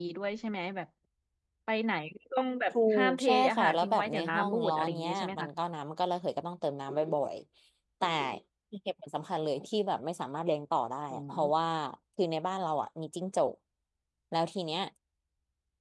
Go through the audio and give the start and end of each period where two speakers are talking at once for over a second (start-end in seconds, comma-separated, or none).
2.9-5.5